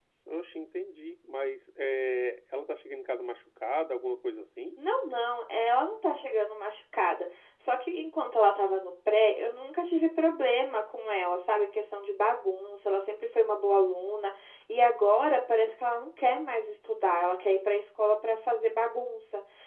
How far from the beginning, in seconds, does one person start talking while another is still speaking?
none

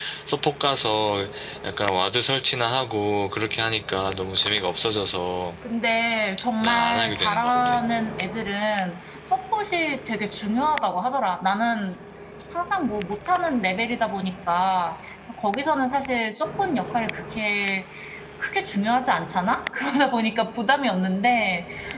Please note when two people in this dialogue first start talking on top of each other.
6.6 s

